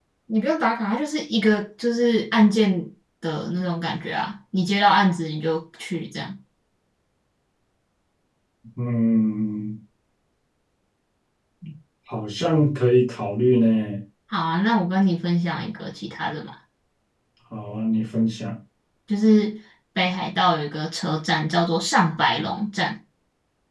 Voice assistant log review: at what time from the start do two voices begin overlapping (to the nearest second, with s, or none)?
none